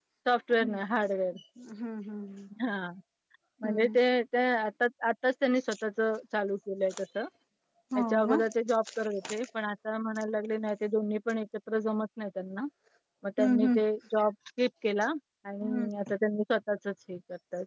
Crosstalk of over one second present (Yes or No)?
No